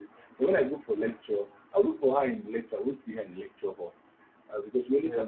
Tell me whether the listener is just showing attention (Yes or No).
Yes